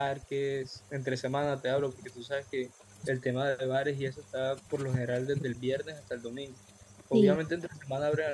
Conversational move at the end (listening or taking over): listening